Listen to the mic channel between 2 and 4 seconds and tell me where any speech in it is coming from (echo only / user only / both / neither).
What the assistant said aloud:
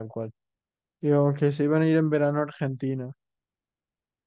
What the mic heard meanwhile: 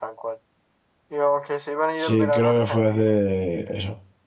both